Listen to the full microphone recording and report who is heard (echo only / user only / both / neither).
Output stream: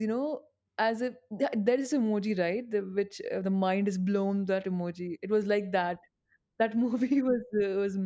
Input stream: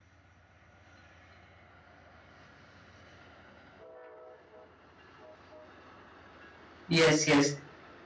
user only